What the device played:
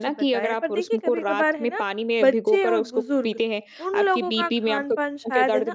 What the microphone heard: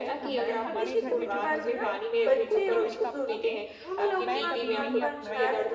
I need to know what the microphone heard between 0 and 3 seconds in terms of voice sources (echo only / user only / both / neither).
both